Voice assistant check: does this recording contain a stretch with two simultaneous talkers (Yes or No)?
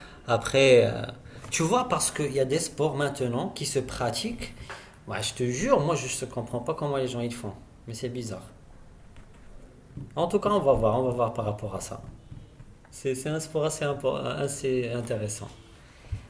No